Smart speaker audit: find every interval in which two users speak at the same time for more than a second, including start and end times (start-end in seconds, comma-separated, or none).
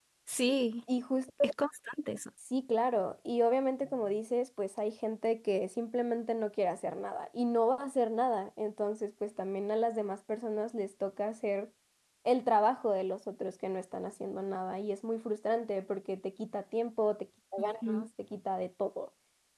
none